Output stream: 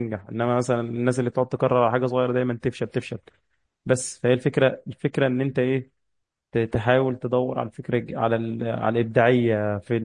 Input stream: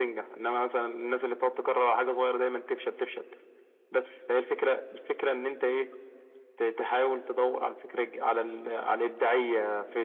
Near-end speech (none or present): none